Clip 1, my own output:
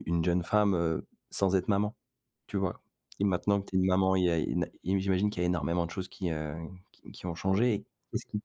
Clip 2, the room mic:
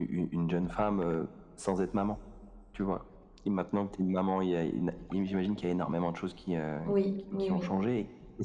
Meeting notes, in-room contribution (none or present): present